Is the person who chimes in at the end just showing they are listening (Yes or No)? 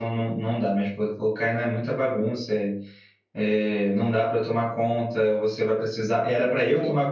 Yes